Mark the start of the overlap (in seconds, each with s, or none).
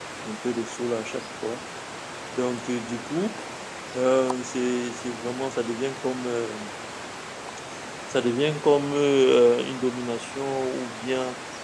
none